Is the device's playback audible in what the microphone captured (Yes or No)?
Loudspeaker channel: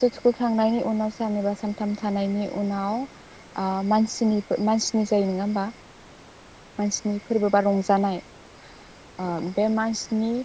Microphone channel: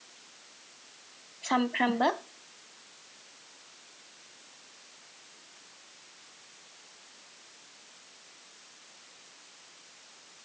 No